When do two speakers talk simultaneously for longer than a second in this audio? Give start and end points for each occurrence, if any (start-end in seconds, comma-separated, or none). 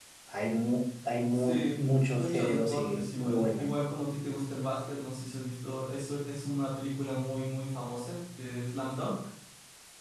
2.1-3.7